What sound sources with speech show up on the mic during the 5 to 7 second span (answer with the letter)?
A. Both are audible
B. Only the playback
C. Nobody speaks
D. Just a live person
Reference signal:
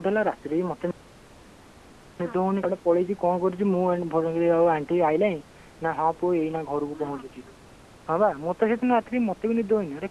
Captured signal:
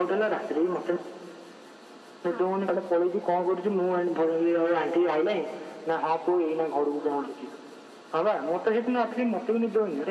B